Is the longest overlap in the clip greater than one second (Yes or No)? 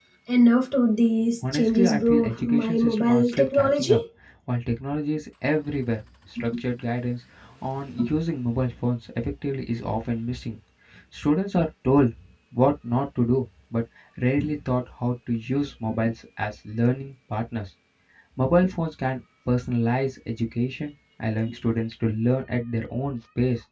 Yes